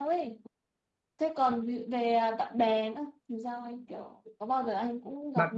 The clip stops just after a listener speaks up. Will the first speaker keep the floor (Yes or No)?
No